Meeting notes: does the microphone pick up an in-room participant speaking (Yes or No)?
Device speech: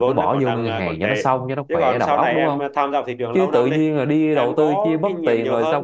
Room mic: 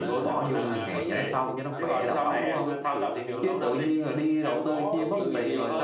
Yes